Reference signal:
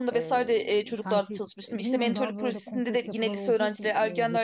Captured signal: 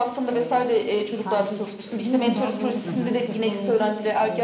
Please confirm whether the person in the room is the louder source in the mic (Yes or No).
No